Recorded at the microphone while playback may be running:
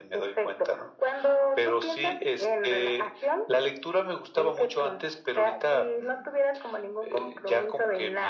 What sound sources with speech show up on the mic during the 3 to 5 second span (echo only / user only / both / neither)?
echo only